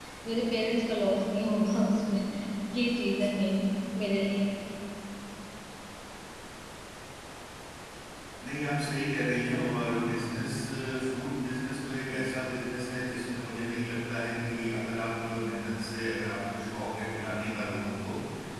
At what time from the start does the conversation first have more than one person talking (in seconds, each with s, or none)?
none